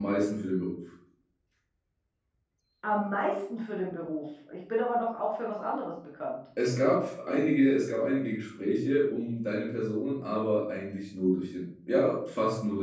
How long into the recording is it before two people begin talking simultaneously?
none

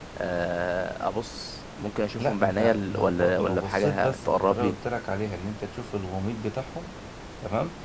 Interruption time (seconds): 2.2 s

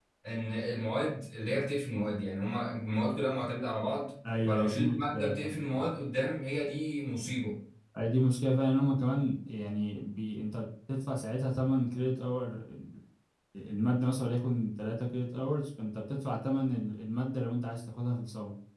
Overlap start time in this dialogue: 4.2 s

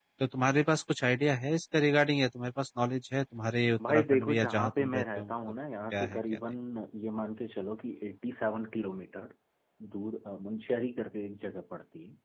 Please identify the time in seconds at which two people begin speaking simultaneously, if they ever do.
3.8 s

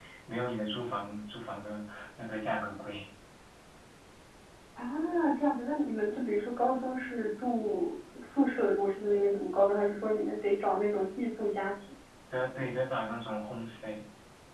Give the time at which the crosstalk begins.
none

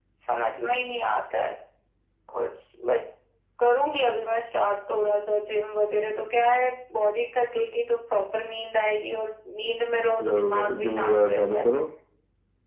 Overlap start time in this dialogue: 10.2 s

